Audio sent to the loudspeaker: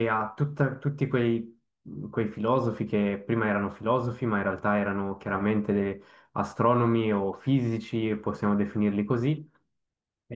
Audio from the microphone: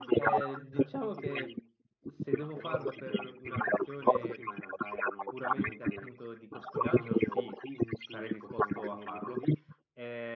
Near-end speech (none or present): present